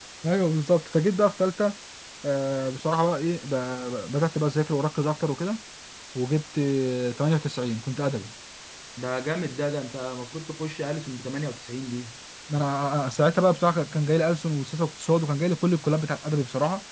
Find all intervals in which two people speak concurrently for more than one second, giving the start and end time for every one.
none

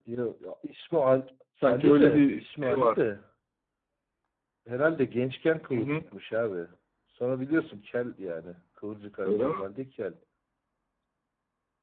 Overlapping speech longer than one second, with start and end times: 1.7-3.0

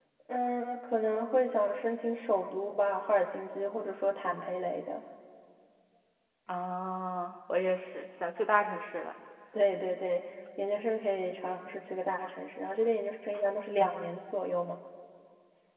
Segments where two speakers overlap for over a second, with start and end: none

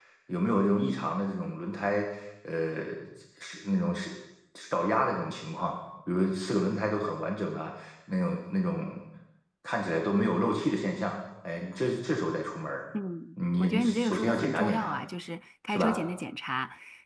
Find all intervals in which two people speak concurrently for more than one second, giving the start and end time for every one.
13.6-15.0

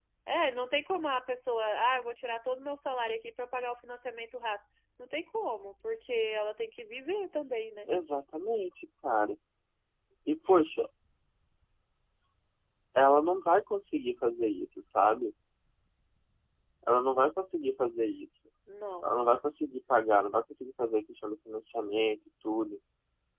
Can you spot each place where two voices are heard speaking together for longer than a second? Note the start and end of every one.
none

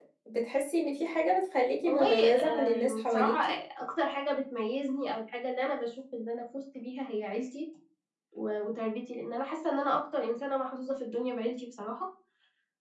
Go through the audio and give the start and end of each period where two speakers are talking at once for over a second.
1.9-3.4

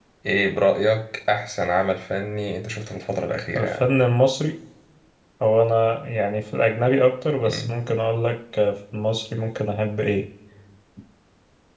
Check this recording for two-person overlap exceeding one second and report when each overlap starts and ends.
none

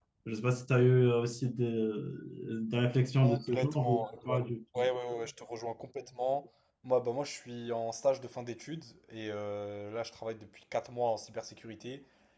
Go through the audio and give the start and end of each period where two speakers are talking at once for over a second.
3.2-4.9

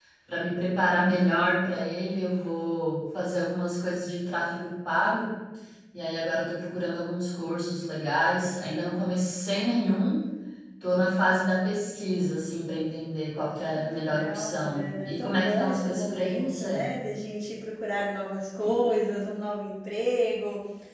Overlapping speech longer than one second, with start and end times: 13.8-16.9

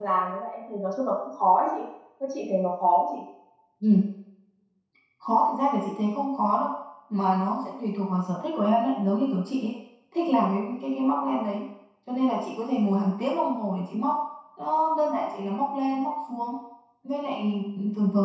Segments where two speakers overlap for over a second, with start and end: none

